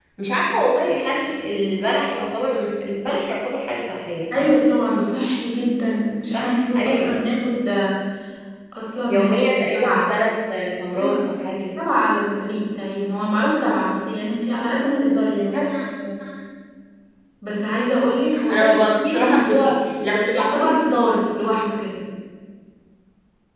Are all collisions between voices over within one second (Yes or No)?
No